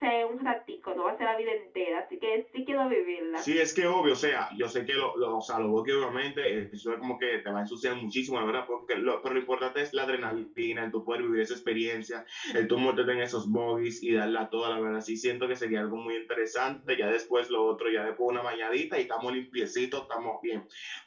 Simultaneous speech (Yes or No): No